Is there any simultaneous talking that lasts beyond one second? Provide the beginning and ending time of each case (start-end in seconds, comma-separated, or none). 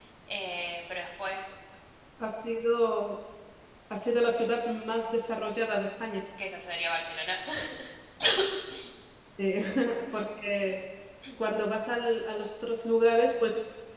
none